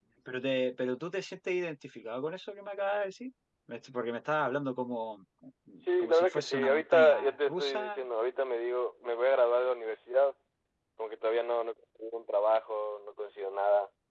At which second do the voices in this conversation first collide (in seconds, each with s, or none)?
6.0 s